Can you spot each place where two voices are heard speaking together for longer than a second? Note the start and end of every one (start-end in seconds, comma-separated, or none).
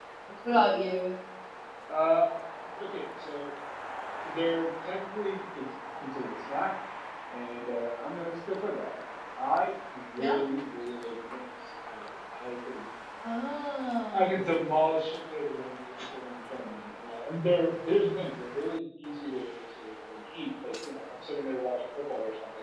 none